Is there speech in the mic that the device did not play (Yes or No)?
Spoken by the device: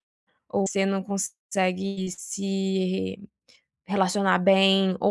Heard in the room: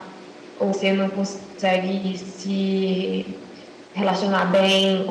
No